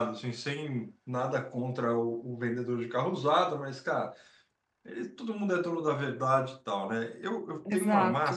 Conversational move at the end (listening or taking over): taking over